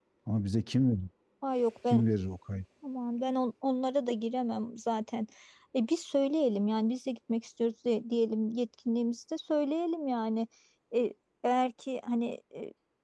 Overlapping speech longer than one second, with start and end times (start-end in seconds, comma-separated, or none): none